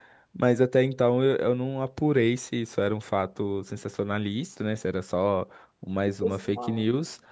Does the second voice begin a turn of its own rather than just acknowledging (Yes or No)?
No